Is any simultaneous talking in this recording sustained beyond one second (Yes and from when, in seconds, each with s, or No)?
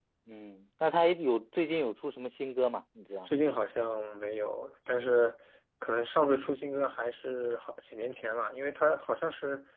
No